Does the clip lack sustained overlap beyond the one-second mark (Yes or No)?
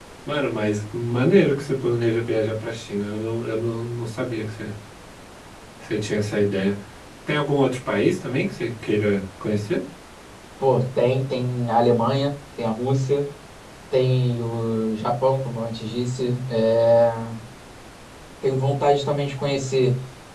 Yes